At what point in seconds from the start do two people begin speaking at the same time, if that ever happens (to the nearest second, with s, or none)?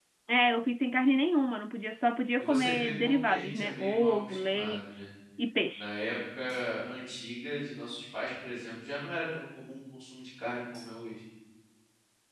2 s